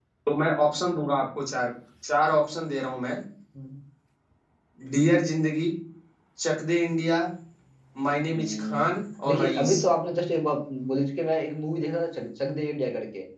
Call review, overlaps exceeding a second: none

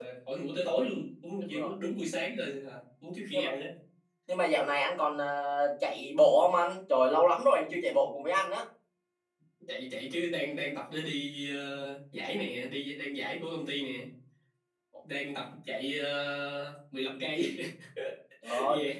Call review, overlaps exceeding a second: none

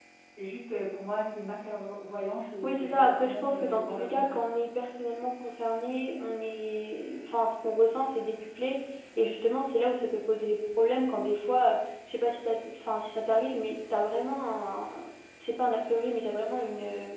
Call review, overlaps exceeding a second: present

